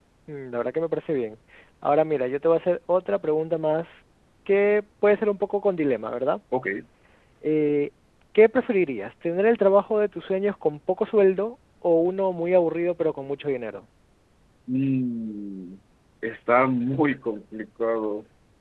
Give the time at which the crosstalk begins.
none

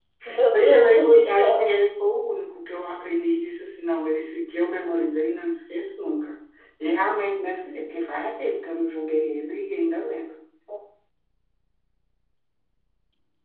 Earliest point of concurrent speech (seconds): 0.5 s

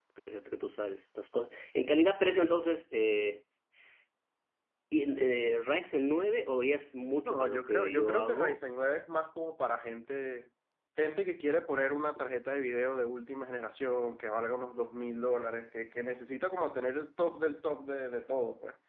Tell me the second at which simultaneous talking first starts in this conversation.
7.2 s

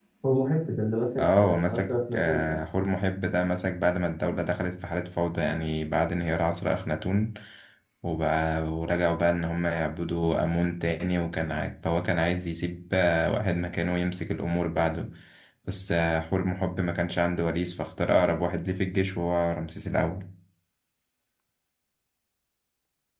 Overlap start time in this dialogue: 1.2 s

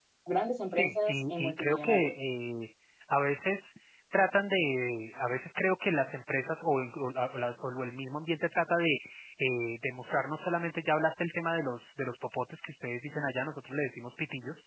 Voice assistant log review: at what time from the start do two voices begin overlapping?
0.7 s

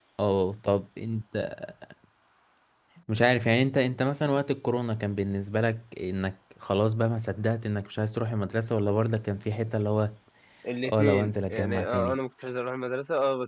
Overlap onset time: 10.9 s

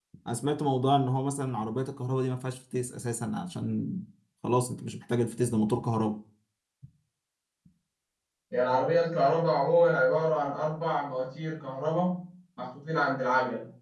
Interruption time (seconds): none

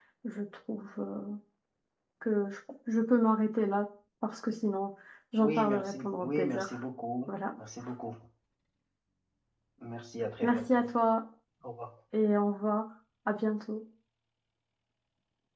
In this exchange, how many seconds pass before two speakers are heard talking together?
5.4 s

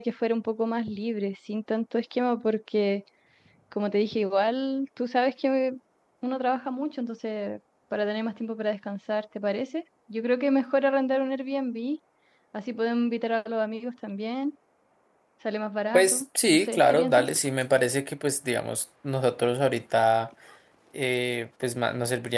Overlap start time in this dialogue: 15.9 s

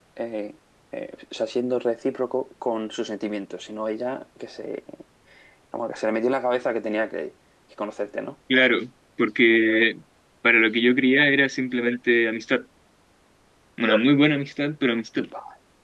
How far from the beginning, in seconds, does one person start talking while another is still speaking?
none

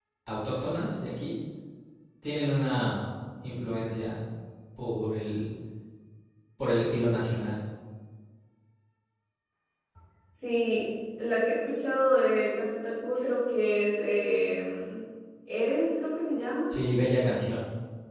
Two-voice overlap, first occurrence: none

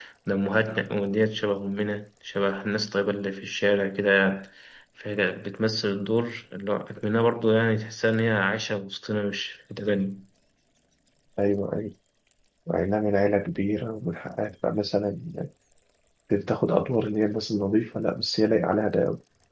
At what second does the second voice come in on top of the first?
none

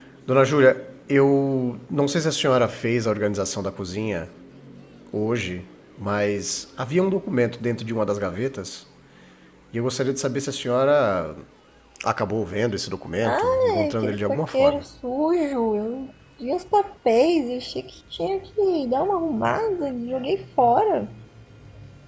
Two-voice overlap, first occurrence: 13.2 s

